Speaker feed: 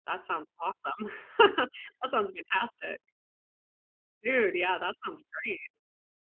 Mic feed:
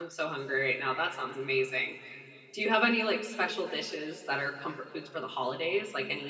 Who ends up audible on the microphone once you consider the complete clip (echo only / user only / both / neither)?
user only